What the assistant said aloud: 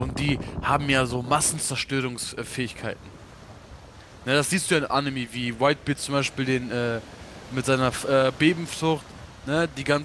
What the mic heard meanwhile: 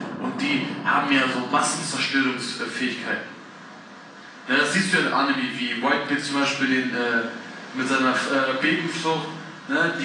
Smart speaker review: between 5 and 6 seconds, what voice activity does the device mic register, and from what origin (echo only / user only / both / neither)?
echo only